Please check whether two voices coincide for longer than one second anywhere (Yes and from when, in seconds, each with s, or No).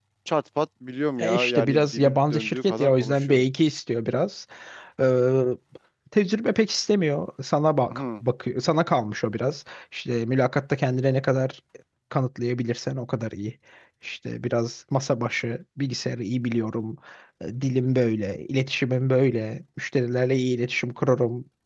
Yes, from 1.2 s